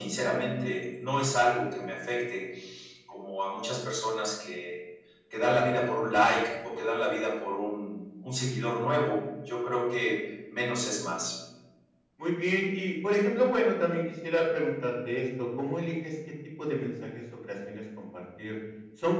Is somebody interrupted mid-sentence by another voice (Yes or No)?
No